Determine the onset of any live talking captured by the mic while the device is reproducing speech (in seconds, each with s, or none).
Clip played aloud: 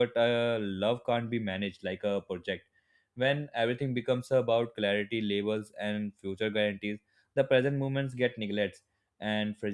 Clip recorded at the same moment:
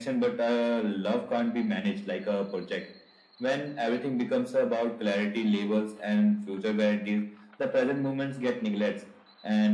none